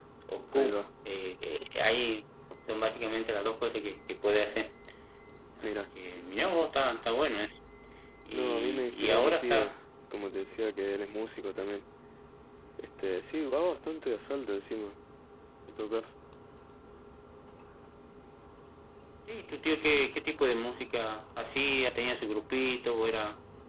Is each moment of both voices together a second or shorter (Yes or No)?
No